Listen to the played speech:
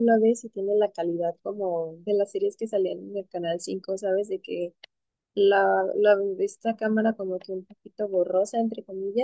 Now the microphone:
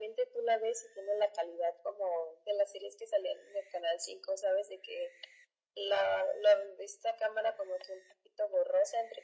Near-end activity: none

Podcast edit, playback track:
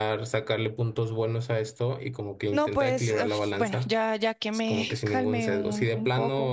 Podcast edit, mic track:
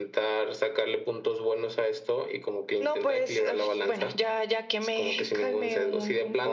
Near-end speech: none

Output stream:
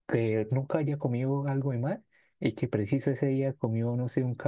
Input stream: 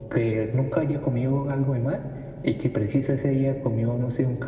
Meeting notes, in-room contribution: none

